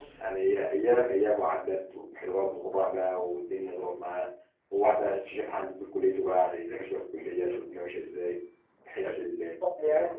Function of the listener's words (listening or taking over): taking over